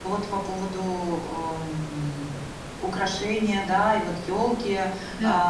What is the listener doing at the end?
listening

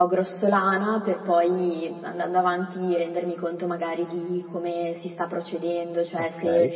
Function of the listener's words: listening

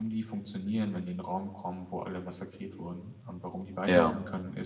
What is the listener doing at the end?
listening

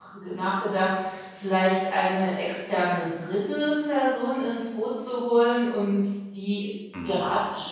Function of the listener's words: listening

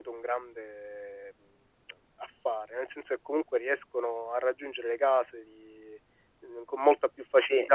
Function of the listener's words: listening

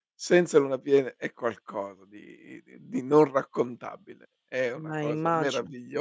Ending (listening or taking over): listening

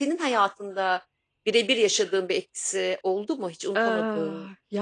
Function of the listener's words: taking over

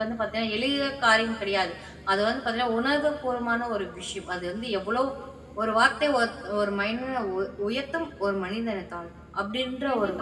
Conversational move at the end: taking over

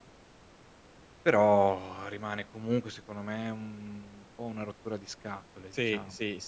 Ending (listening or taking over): taking over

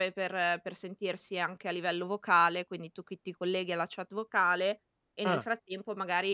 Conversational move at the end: listening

